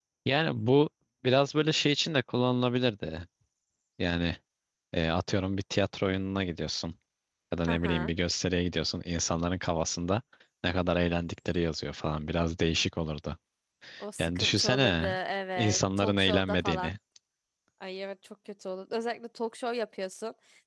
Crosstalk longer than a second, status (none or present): present